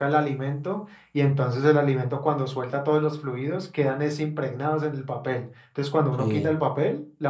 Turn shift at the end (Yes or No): No